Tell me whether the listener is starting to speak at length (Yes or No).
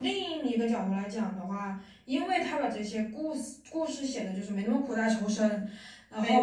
No